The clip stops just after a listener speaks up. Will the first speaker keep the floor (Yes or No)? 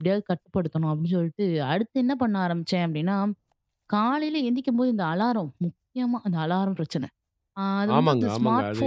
No